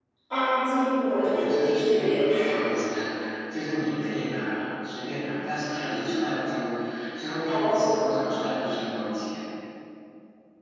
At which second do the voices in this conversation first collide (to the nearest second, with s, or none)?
1 s